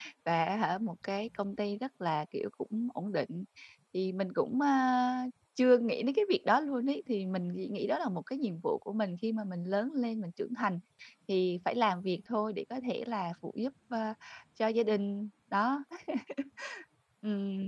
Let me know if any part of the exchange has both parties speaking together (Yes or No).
No